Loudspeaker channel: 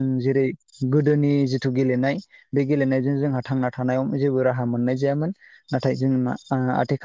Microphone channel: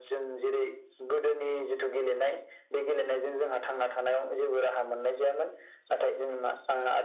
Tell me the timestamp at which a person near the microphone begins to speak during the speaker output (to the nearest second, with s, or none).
none